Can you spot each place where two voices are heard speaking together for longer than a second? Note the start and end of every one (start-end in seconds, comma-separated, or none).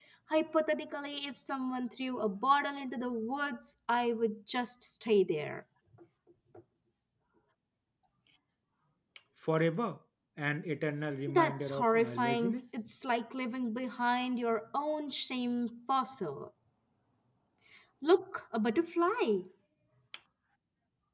11.3-12.6